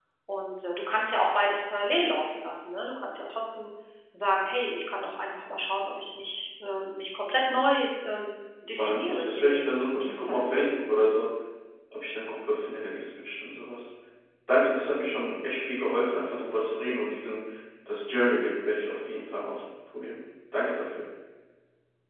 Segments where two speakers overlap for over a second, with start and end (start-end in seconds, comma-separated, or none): 8.8-10.6